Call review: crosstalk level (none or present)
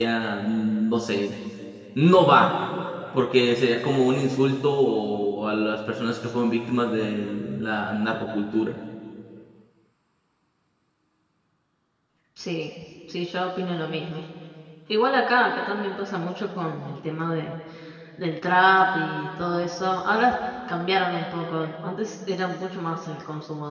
none